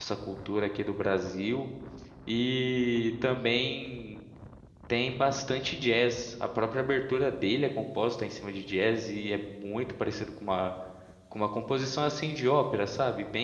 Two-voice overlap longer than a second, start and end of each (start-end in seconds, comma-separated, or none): none